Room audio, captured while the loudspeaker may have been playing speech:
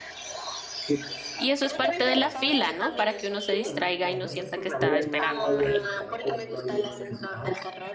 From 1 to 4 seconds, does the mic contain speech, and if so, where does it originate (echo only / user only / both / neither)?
both